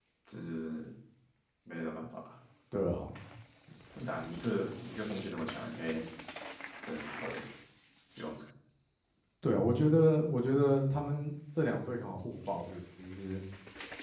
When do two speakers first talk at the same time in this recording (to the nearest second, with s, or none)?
none